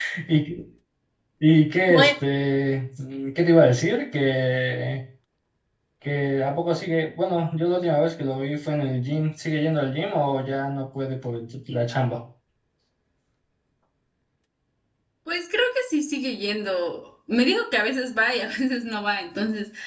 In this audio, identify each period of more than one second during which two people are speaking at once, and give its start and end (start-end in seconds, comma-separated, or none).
none